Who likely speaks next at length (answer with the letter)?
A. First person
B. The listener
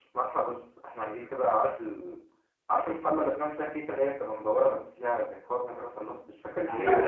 B